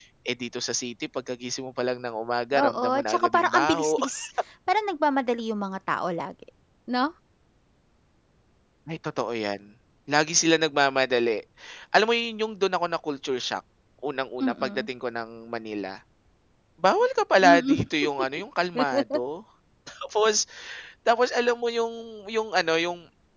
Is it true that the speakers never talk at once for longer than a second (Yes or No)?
No